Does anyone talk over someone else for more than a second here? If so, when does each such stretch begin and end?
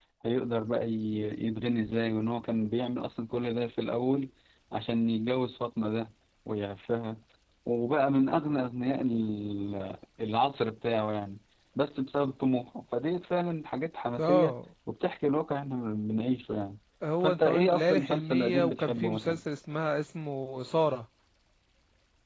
17.2-19.4

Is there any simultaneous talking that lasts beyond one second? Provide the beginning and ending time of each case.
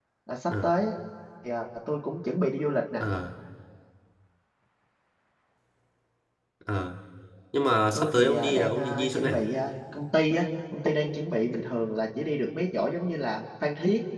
8.0-9.4

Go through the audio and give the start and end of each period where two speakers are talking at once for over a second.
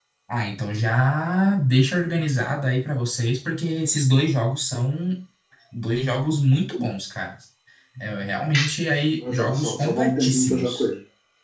9.3-10.8

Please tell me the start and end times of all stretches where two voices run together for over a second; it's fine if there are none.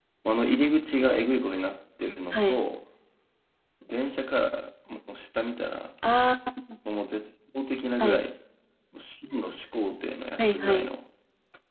none

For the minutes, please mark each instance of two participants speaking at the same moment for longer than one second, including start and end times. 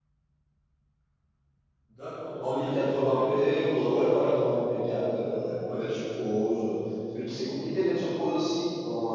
2.4-6.0

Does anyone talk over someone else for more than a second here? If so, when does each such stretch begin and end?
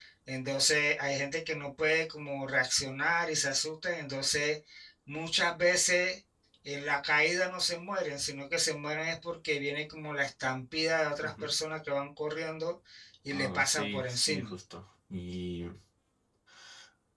13.3-14.5

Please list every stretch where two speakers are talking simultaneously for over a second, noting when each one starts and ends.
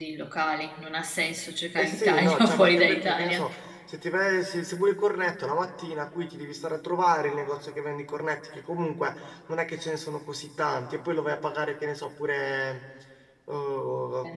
1.8-3.5

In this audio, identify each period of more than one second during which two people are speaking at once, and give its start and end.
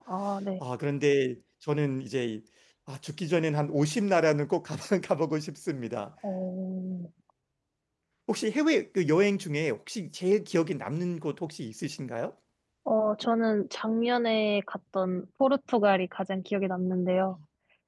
none

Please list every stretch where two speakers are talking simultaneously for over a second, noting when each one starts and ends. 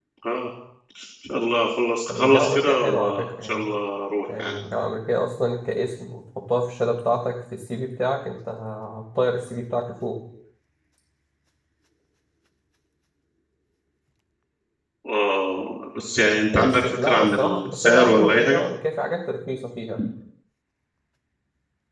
2.1-3.7, 16.5-18.6

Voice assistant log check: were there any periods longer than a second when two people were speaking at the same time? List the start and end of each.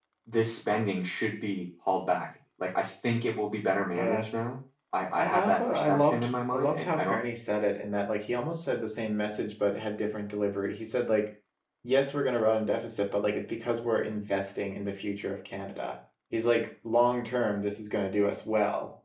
5.1-7.2

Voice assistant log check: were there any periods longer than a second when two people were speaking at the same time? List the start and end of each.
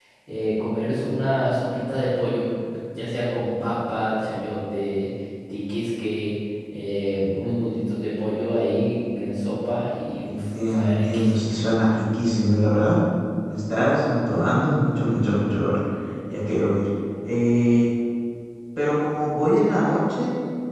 10.3-11.5

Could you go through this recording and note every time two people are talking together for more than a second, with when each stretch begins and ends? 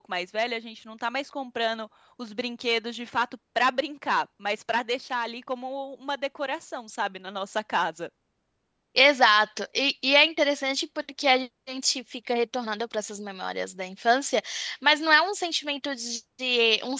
none

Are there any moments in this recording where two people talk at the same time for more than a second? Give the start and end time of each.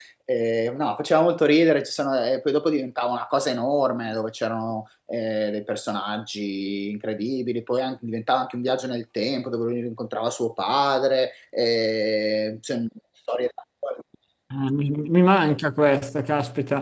none

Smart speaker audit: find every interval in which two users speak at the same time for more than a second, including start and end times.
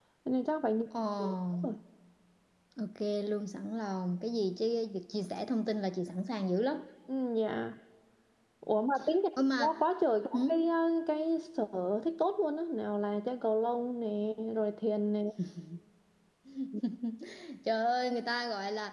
none

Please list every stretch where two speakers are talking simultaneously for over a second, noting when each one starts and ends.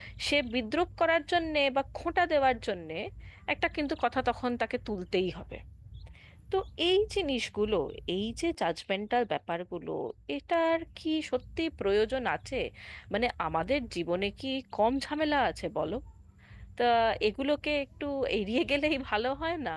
none

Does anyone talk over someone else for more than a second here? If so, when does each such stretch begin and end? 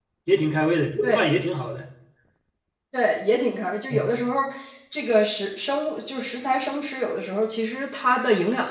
none

